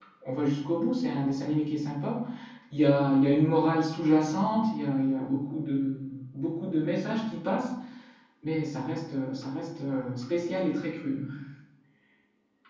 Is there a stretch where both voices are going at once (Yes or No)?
No